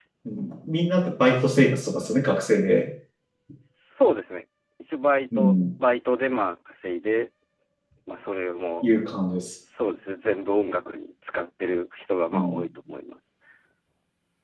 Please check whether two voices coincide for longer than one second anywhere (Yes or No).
No